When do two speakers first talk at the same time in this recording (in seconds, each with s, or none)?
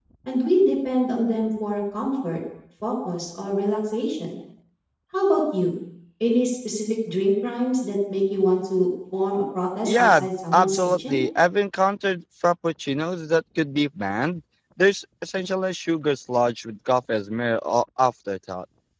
9.8 s